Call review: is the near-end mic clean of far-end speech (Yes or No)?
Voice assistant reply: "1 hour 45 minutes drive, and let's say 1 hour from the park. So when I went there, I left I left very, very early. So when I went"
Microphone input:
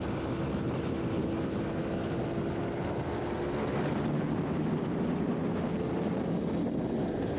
Yes